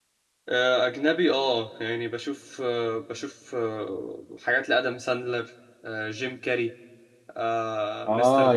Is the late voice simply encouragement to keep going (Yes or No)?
No